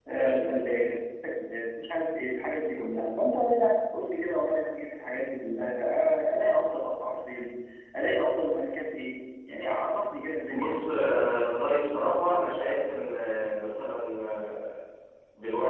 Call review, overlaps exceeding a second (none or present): none